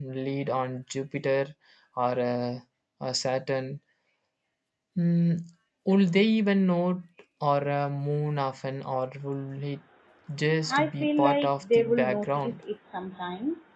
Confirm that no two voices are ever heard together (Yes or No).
No